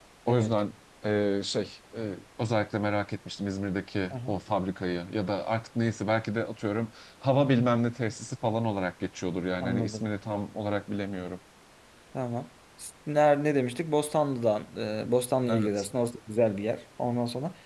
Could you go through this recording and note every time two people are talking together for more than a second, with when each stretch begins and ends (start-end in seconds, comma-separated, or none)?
none